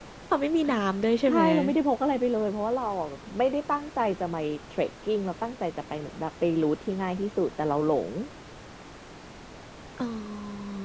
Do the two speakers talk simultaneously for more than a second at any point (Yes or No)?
No